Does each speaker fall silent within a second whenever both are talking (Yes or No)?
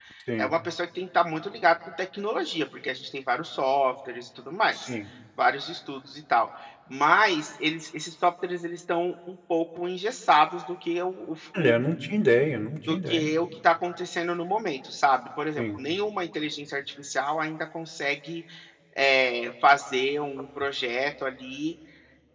Yes